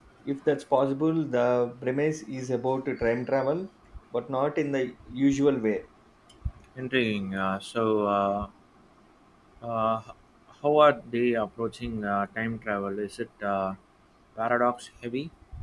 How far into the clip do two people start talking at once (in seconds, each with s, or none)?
none